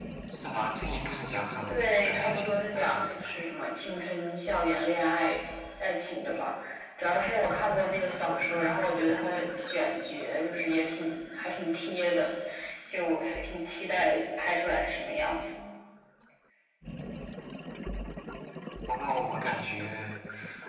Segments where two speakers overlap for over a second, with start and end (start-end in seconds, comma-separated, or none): 1.7-3.0